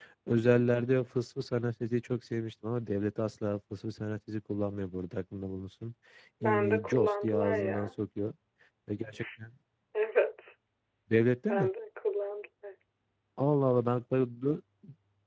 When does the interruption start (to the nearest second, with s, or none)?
6 s